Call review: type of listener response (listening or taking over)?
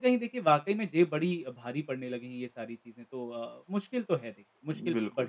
taking over